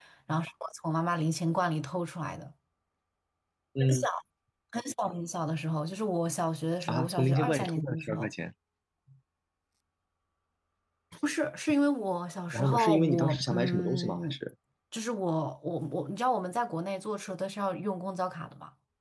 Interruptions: present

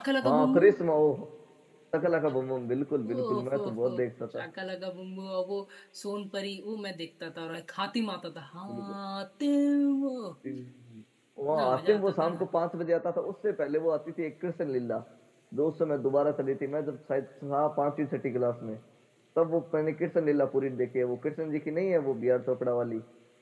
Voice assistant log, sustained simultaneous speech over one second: present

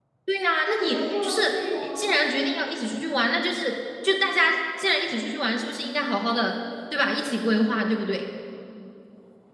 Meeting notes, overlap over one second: present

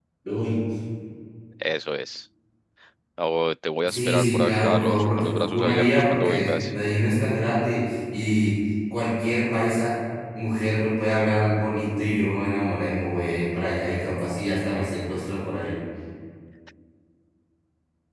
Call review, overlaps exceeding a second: present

